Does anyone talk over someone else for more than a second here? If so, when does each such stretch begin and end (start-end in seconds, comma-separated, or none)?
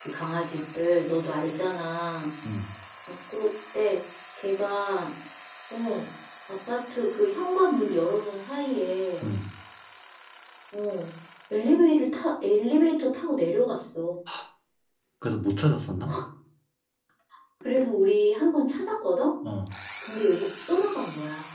none